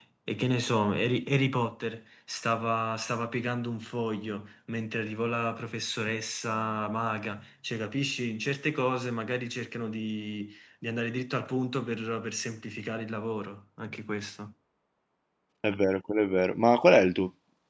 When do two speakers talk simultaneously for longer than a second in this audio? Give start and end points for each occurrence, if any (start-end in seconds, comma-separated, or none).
none